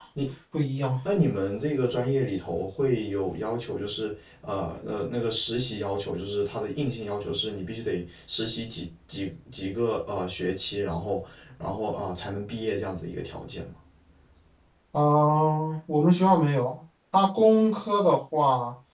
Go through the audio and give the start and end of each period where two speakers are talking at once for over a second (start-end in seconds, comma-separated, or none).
none